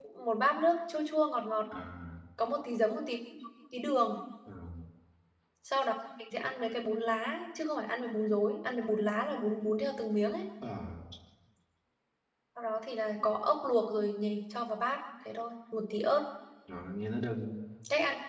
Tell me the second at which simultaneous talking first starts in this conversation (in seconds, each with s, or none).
none